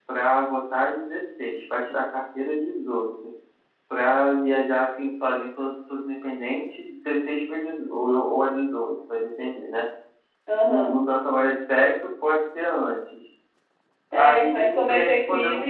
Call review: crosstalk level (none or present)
present